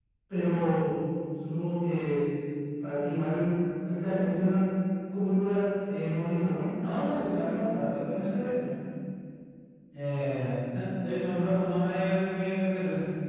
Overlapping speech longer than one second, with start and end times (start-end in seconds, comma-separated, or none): none